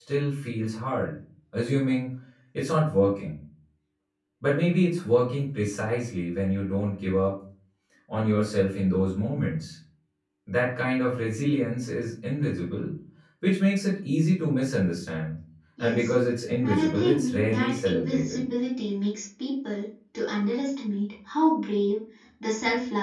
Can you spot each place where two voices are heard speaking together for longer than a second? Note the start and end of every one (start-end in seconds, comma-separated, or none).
16.6-18.4